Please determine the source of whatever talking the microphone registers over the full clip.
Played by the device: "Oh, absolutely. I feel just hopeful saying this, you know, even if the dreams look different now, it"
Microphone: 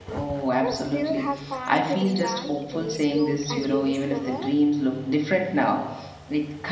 both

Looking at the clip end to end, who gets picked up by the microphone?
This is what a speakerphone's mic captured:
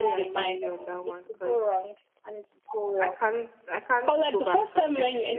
both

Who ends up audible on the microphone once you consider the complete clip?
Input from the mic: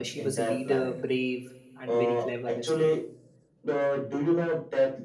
both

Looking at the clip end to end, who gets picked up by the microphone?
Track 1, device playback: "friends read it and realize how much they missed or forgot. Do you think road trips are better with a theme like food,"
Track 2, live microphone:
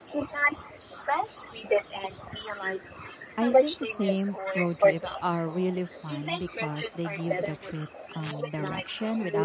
both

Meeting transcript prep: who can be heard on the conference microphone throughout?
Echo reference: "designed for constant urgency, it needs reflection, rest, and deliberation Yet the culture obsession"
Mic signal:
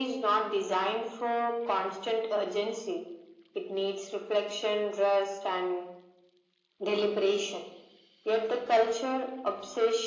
echo only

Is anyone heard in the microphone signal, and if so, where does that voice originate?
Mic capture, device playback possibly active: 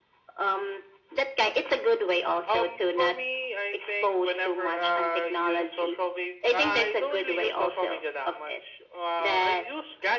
echo only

